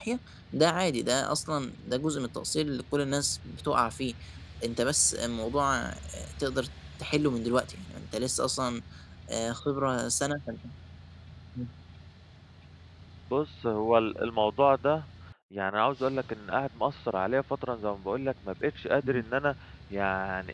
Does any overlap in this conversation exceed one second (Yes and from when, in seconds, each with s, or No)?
No